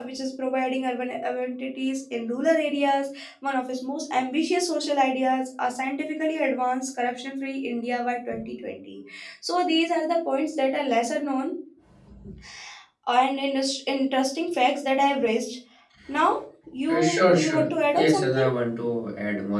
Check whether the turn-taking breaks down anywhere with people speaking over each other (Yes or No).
Yes